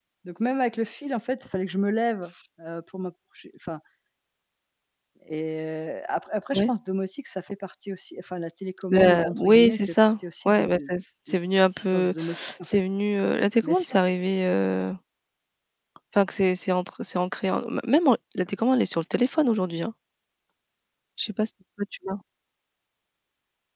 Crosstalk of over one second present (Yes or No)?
Yes